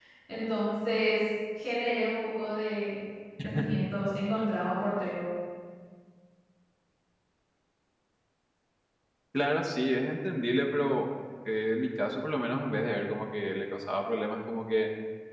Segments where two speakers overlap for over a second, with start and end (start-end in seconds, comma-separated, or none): none